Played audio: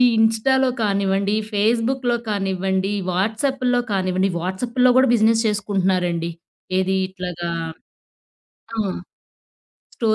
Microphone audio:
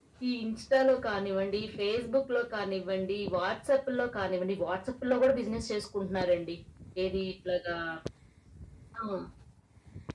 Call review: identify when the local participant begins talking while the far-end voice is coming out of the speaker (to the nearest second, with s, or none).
none